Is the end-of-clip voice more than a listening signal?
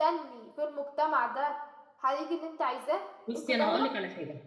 Yes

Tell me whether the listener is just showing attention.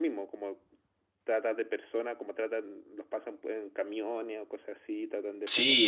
No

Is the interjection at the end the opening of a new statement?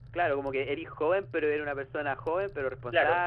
Yes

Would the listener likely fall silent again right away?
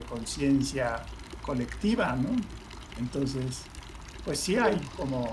Yes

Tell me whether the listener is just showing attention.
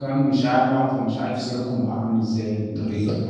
Yes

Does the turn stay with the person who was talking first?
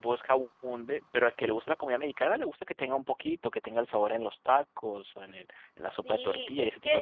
No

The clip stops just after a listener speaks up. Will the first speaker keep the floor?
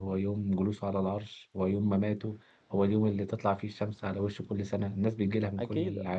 No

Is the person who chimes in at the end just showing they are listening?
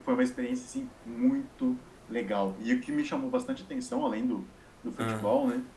Yes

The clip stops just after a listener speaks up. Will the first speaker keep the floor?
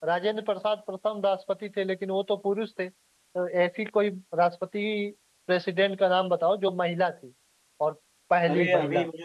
No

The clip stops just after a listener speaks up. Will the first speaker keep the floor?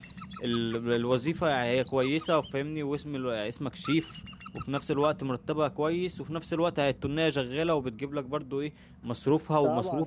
No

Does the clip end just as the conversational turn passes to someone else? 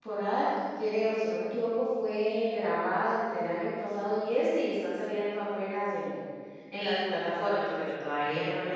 No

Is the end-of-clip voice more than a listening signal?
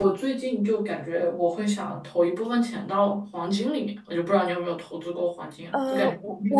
Yes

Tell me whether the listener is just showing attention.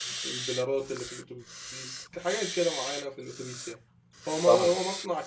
Yes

